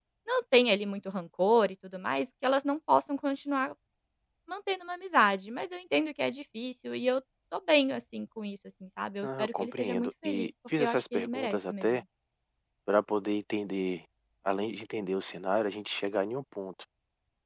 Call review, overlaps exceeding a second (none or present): present